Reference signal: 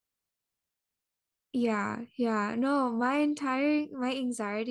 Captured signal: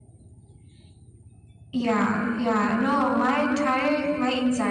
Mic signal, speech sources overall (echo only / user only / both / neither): echo only